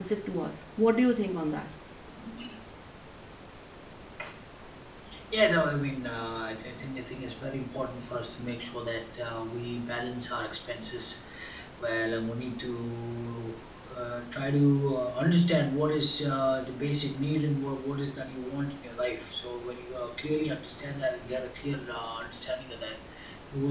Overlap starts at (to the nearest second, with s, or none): none